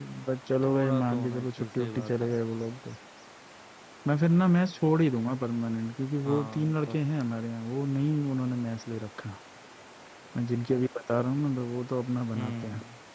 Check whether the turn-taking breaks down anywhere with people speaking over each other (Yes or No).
Yes